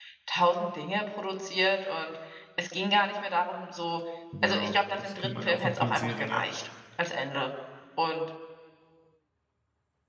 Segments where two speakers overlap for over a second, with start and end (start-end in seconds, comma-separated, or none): 4.4-6.4